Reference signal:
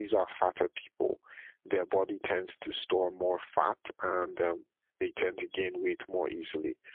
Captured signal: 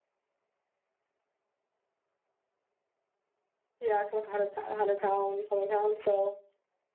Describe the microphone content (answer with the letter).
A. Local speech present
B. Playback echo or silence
A